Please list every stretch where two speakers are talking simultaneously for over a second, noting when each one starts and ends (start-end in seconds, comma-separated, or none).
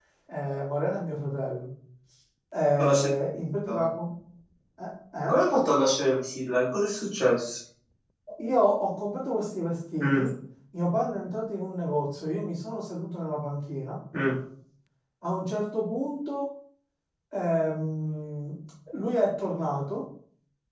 none